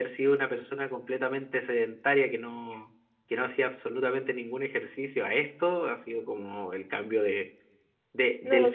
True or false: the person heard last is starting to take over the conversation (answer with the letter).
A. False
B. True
A